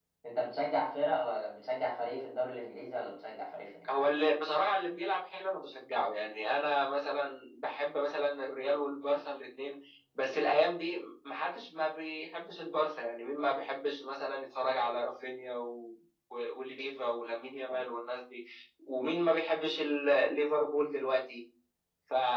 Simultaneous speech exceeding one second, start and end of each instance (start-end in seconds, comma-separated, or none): none